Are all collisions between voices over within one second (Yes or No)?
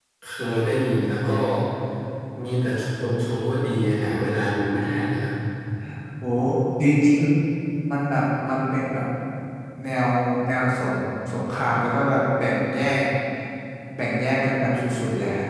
Yes